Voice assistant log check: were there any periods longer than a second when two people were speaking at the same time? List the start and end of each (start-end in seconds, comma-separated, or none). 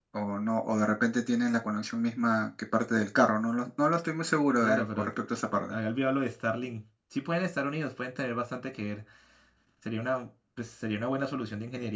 none